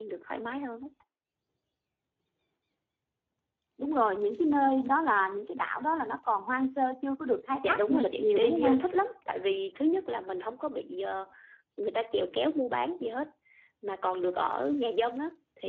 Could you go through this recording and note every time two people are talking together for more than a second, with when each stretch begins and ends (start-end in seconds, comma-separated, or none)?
7.6-8.8